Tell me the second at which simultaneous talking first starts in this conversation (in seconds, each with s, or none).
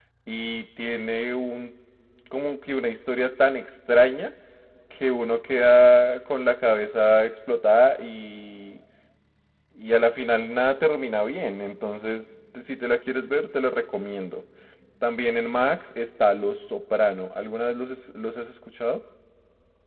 none